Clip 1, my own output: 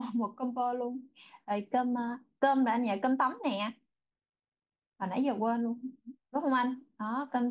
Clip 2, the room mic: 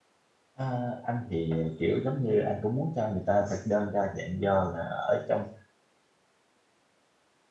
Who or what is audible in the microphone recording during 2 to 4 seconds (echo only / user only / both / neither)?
user only